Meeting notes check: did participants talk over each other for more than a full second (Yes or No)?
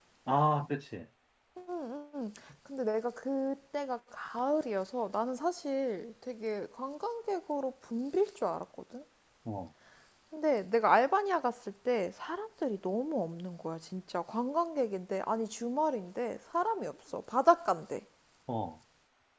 No